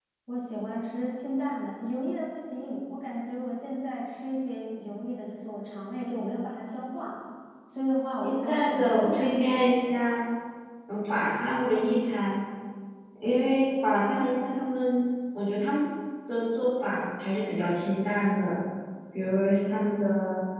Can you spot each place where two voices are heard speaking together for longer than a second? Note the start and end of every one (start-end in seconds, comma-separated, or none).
8.2-9.8